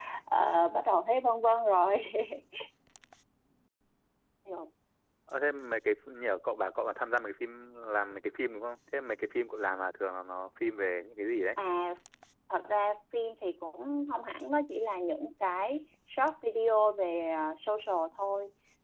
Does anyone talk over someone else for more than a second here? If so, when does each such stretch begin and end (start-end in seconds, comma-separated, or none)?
none